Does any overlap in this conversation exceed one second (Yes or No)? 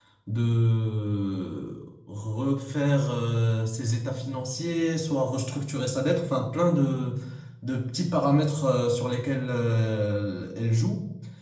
No